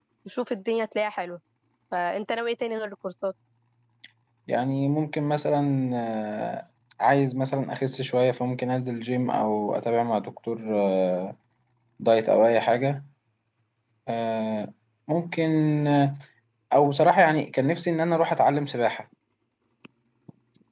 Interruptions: none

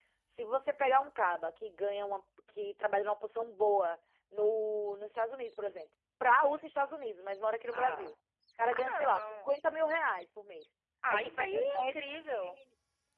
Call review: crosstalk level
present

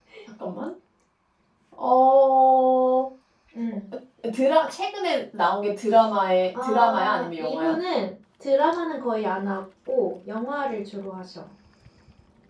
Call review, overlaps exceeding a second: present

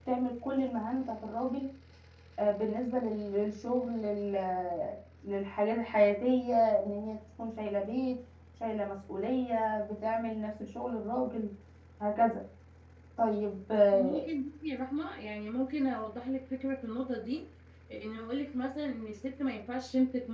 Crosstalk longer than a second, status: none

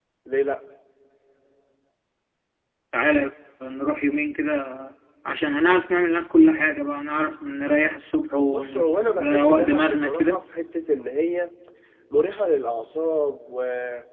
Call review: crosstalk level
present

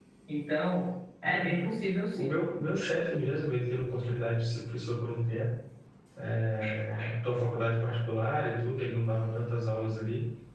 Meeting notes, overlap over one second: none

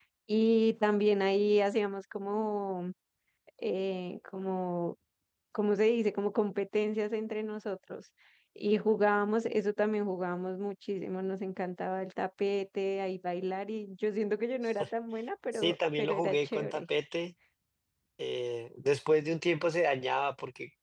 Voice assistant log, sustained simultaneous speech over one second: present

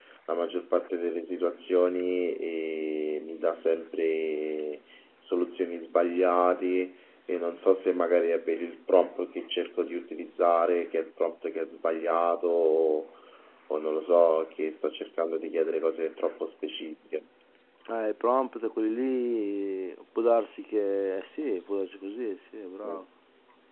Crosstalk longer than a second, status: none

